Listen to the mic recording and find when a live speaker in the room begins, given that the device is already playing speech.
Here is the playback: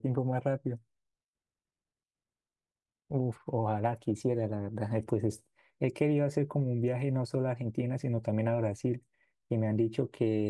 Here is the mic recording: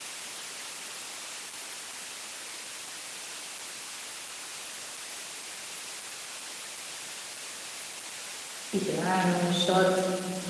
9 s

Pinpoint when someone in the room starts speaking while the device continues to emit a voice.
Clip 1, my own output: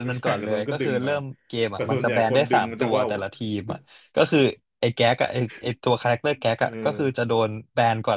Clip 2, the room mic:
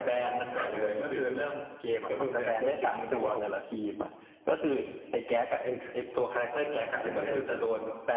7 s

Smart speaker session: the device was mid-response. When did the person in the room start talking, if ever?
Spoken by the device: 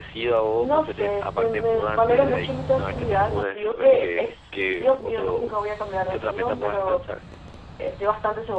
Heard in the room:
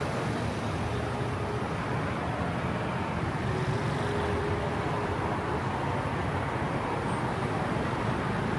none

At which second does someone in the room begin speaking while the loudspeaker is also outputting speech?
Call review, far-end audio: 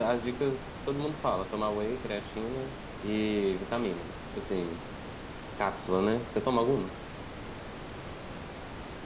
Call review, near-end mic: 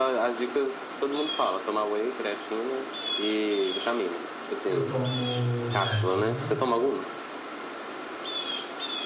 5 s

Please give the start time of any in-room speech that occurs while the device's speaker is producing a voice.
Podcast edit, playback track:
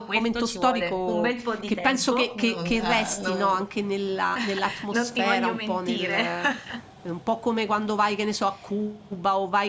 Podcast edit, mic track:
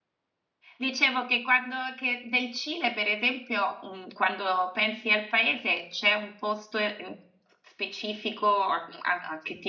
1 s

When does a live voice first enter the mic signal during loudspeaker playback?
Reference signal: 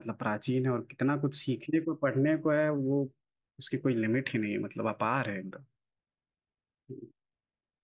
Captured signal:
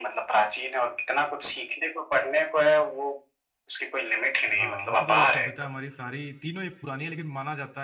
5 s

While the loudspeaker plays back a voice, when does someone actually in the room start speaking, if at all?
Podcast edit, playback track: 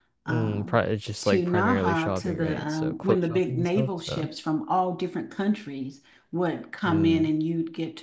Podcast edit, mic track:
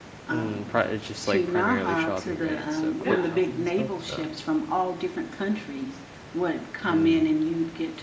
3 s

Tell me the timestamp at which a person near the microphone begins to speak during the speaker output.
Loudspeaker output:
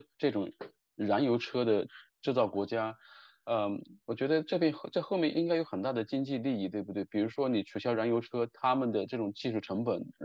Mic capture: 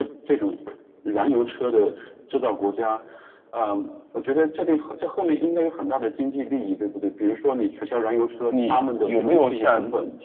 8 s

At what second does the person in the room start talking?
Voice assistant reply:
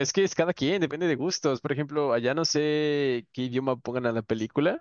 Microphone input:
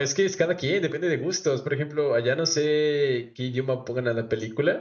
none

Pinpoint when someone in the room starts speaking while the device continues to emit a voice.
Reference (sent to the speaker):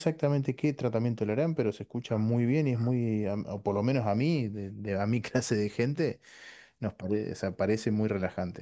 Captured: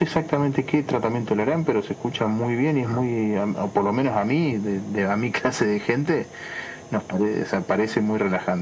none

